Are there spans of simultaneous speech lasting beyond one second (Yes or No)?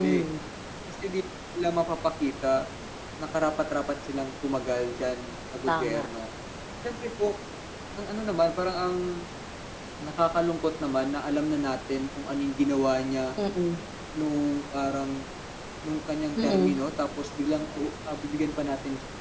No